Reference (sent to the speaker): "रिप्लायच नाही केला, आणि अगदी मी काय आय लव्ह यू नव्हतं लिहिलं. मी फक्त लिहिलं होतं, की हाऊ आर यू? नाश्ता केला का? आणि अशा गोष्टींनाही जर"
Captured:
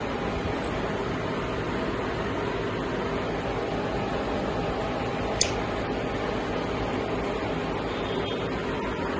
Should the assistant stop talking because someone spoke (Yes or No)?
No